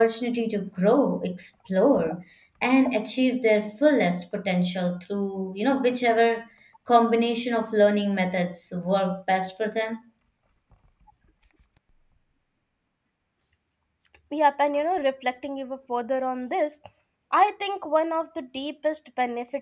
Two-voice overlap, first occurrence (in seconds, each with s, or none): none